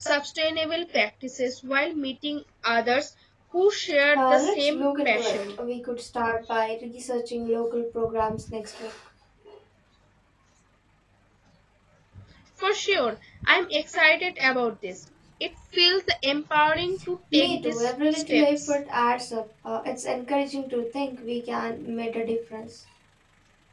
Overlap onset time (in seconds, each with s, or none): 4.1 s